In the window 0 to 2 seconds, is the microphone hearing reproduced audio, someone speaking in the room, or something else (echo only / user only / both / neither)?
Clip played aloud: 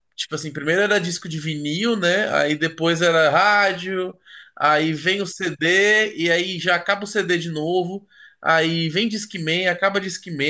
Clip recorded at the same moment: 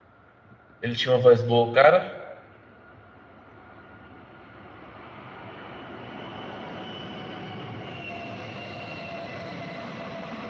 user only